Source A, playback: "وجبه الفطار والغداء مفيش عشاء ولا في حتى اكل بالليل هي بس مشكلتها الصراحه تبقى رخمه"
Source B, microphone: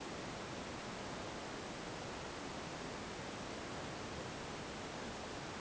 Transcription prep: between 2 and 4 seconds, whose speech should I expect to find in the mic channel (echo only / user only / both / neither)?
neither